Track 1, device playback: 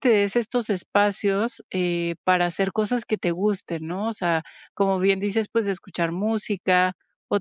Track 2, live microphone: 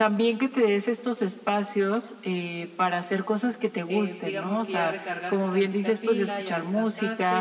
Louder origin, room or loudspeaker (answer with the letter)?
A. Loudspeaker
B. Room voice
A